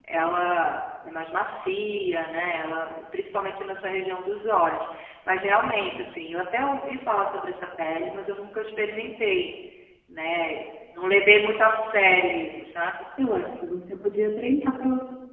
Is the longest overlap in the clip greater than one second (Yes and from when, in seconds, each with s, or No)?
No